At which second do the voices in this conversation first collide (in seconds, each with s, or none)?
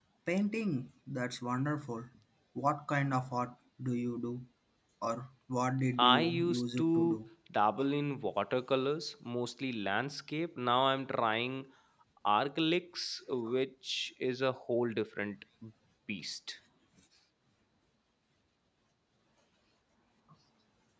6.0 s